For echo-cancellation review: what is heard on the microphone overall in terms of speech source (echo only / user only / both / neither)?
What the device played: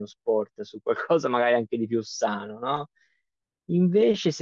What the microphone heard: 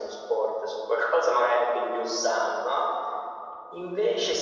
echo only